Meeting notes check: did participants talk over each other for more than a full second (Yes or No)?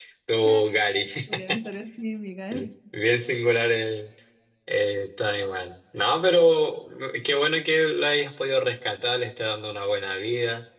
No